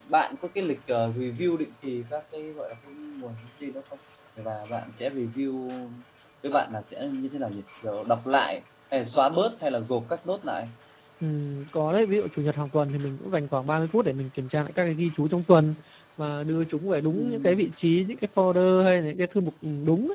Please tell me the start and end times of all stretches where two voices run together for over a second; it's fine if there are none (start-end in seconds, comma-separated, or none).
none